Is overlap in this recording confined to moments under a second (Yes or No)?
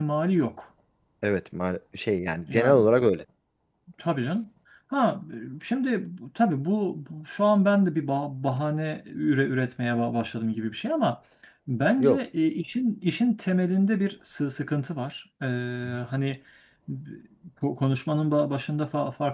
Yes